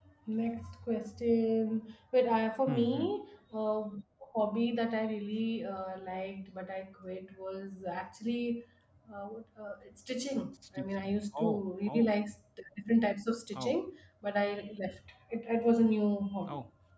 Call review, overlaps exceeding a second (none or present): present